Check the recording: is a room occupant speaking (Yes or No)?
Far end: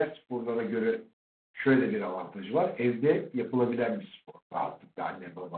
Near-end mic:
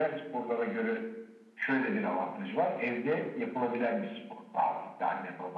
No